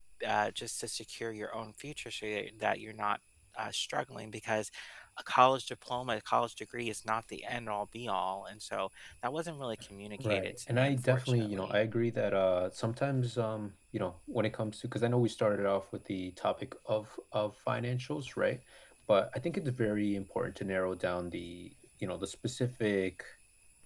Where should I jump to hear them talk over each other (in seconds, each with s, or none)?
10.2 s